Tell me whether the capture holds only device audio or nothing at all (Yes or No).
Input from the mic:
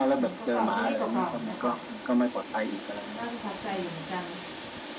No